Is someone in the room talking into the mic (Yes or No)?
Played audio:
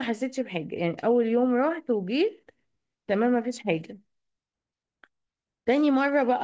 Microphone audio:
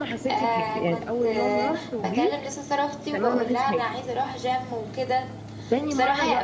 Yes